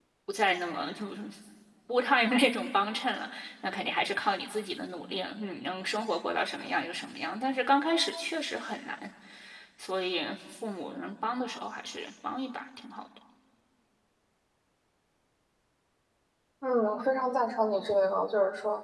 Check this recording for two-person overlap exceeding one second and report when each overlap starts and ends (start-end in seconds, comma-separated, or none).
none